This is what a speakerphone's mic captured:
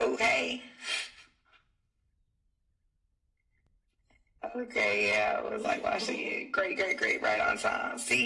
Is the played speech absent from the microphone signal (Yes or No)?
No